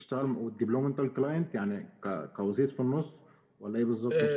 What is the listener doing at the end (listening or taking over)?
taking over